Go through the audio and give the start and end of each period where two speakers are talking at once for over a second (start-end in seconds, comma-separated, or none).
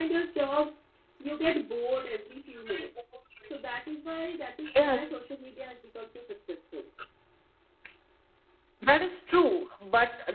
none